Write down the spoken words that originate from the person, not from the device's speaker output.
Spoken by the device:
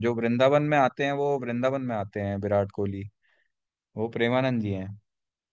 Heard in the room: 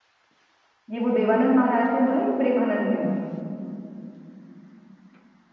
ये वो देवानंद महाराज ने बोला है कि प्रेमानंद ने

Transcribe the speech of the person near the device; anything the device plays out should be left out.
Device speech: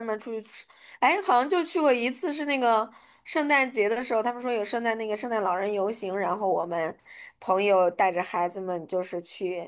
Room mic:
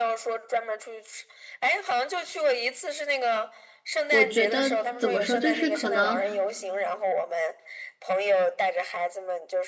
我觉得怎么说，就是可能

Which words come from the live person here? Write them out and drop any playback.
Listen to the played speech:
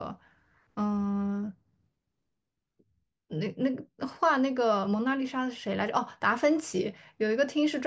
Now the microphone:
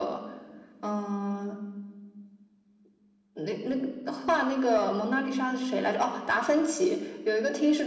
none

